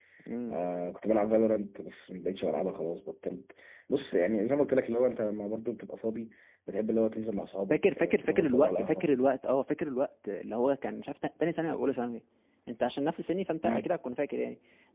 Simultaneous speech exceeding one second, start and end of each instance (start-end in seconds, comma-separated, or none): 7.7-9.2